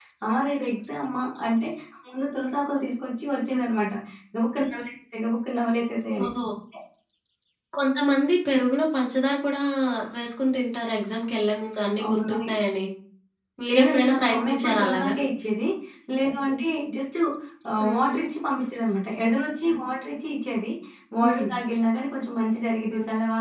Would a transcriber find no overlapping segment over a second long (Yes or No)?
No